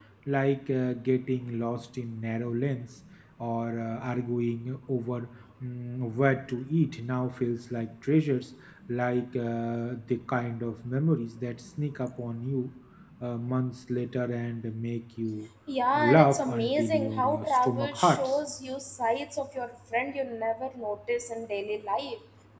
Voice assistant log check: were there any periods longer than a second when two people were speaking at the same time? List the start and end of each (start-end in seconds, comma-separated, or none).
15.9-18.4